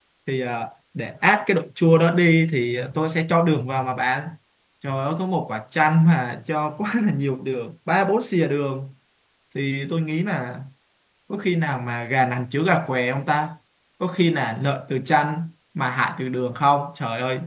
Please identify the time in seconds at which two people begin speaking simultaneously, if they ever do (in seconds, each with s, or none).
none